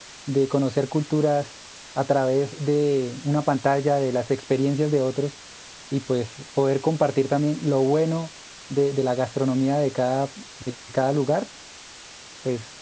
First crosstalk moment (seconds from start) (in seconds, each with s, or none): none